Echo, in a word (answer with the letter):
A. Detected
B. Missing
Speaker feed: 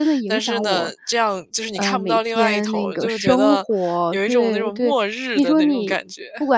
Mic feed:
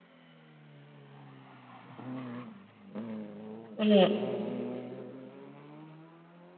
B